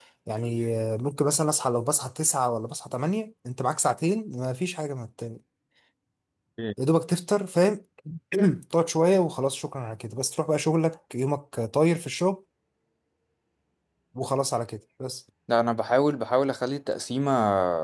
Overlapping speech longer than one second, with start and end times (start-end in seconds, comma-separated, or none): none